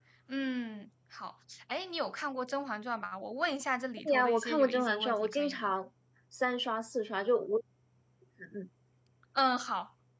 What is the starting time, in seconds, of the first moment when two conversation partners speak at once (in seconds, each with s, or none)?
4.0 s